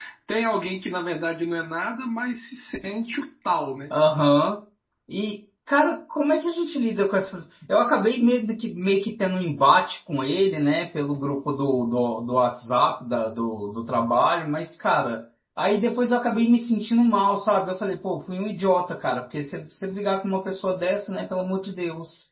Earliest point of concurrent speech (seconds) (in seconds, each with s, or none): none